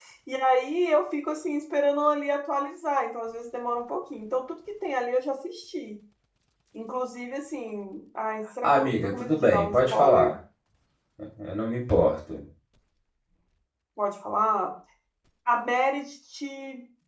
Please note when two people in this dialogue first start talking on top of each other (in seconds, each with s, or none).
8.6 s